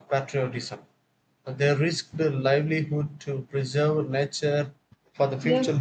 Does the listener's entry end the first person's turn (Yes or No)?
Yes